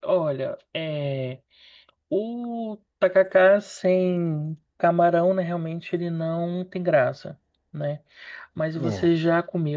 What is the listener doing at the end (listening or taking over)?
listening